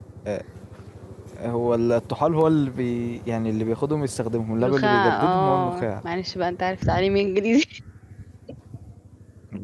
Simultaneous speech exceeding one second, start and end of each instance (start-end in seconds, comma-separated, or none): 4.6-5.9